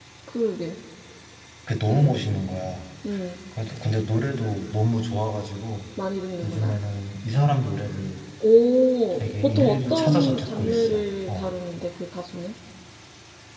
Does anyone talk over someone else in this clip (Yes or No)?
Yes